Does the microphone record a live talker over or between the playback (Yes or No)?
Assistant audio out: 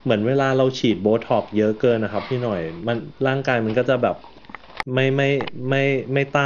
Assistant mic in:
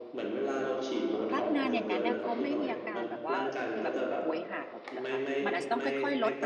Yes